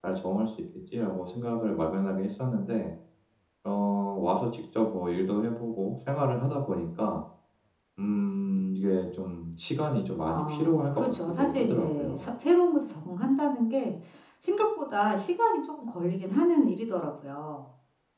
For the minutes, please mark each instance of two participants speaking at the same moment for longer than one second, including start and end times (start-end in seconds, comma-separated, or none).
10.3-12.2